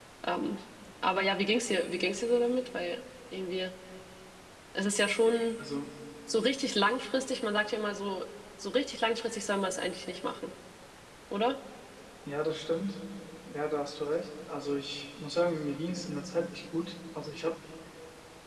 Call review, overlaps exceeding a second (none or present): none